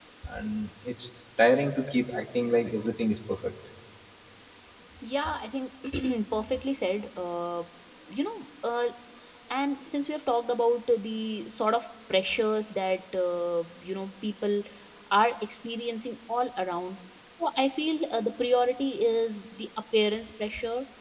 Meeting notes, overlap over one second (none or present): none